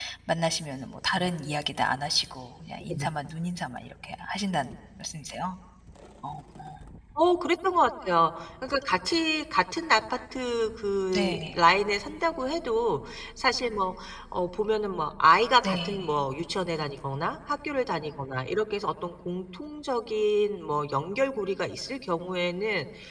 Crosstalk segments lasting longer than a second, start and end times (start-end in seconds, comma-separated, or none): none